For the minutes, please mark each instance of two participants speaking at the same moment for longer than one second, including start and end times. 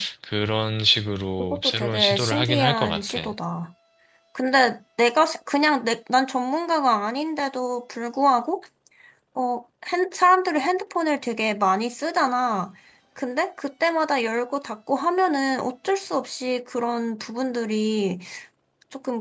1.4-3.2

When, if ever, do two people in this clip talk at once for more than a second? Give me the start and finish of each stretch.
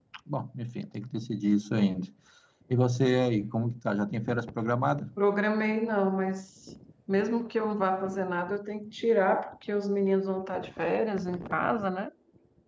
none

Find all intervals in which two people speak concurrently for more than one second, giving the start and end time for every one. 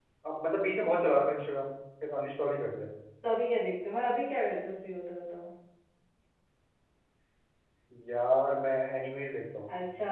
none

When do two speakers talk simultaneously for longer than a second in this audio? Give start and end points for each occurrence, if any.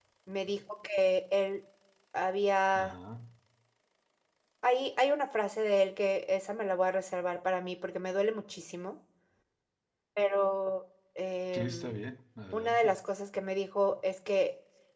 none

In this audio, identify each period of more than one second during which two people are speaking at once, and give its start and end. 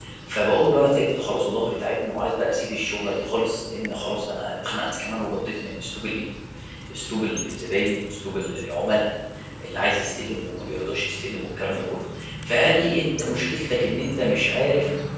none

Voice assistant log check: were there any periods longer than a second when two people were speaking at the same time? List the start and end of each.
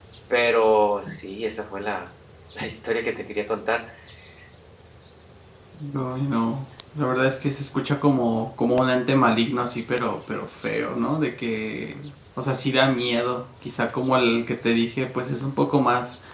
none

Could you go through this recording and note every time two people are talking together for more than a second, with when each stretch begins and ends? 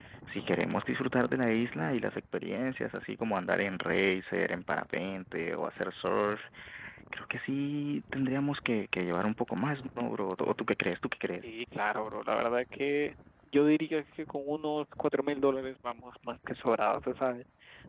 none

